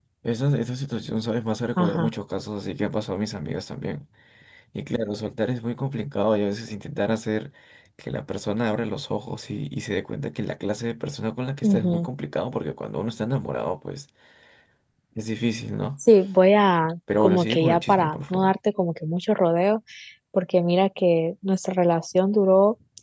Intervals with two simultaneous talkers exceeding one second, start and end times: 17.2-18.5

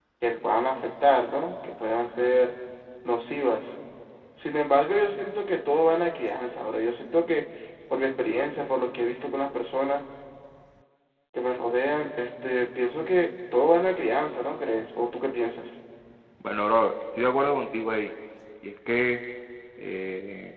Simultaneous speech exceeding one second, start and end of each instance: none

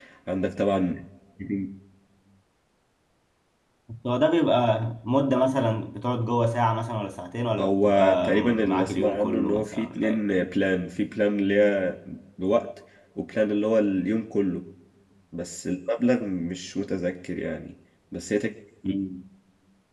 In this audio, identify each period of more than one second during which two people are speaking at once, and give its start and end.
7.6-10.2

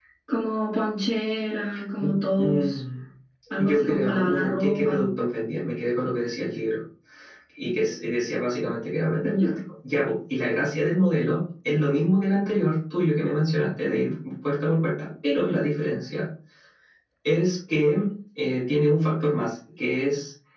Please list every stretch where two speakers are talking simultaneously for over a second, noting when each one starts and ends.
3.5-5.0

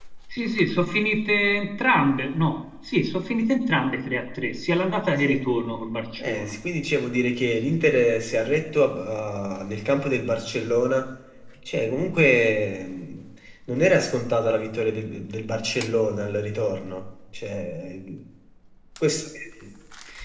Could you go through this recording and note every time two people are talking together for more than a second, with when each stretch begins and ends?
none

